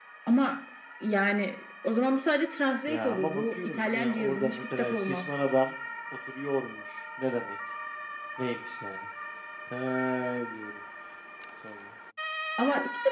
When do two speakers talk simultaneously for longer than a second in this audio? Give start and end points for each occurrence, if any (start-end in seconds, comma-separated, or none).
2.9-5.2